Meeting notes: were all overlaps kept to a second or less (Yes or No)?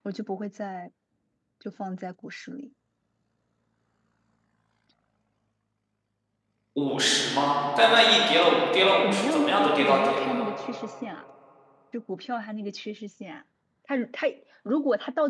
No